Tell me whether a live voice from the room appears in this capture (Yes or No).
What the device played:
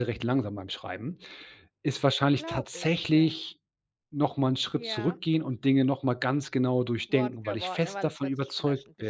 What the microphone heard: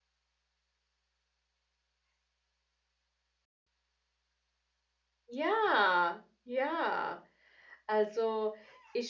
Yes